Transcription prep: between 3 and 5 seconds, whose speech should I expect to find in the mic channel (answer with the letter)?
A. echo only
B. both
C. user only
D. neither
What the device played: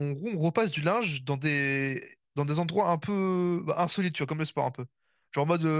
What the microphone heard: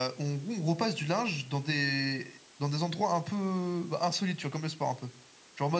A